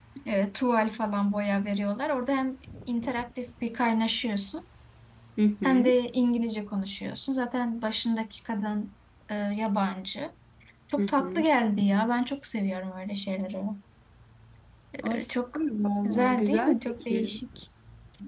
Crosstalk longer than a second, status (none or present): present